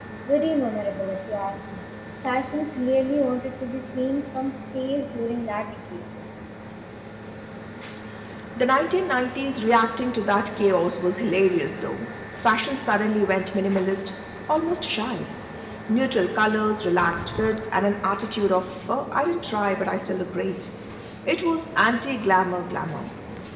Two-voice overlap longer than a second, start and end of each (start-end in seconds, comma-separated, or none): none